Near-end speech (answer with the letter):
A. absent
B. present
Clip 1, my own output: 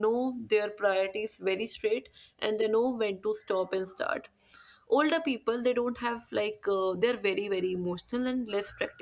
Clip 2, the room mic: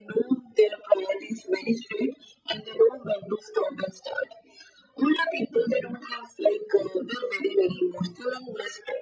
A